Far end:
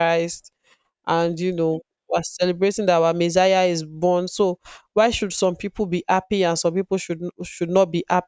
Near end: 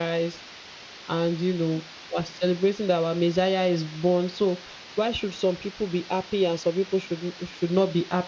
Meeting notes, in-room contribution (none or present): none